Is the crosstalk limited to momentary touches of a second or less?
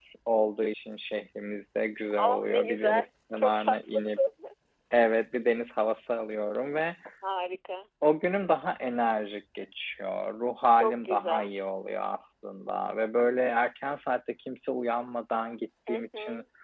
No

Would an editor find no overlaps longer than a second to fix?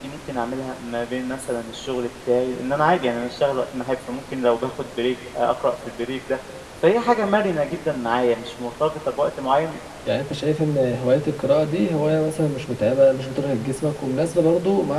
Yes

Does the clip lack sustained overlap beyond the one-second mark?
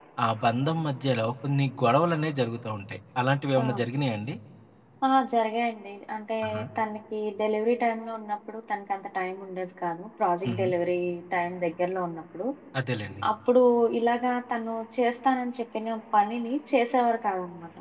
Yes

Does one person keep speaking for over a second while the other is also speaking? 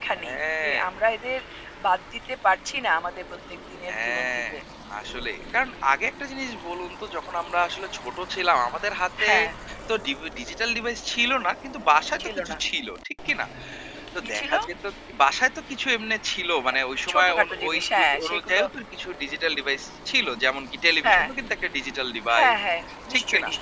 Yes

